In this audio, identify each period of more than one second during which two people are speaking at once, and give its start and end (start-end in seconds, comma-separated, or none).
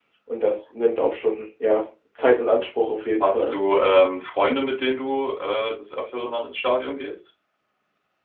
none